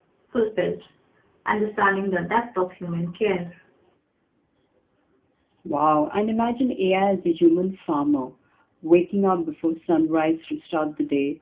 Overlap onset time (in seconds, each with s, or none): none